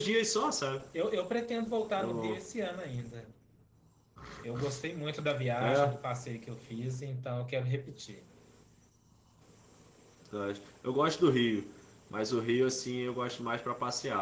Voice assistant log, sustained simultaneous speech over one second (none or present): none